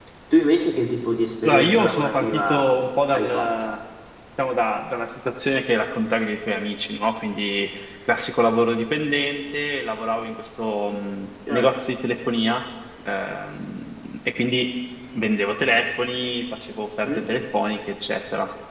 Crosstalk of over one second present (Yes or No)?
Yes